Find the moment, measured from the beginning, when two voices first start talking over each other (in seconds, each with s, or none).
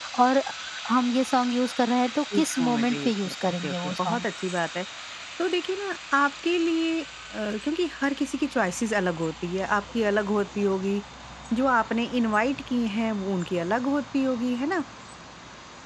2.3 s